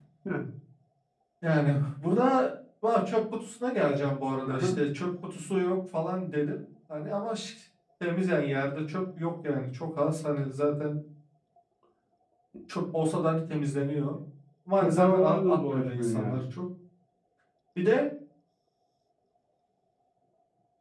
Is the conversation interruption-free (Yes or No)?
No